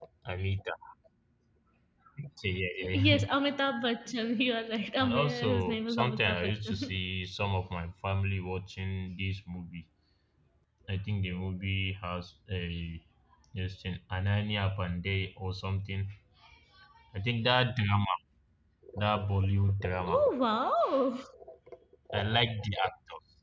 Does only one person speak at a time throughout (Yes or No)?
No